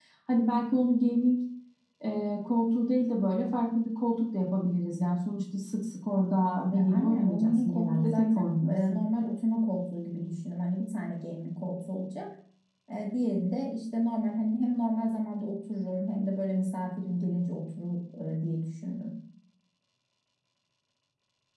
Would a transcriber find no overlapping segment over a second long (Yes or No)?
No